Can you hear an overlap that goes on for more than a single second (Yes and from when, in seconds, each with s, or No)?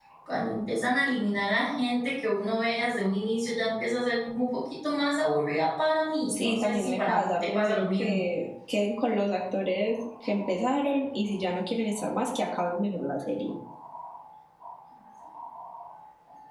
Yes, from 6.3 s